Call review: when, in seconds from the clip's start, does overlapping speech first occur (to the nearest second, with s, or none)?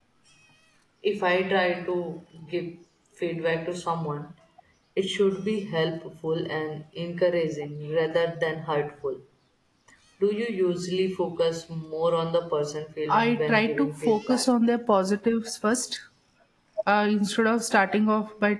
13 s